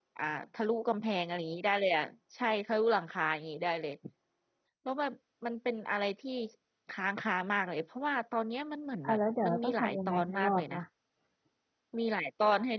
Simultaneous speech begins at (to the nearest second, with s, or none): 9 s